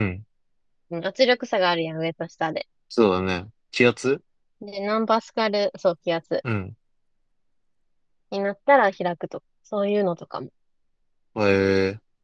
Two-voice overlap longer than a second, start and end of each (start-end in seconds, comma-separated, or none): none